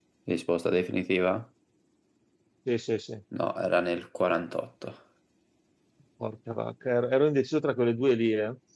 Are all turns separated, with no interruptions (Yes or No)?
Yes